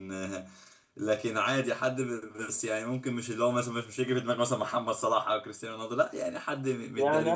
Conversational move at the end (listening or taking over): taking over